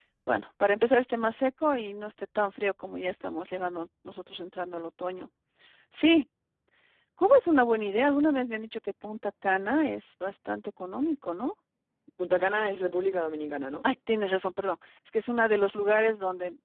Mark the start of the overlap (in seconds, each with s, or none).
none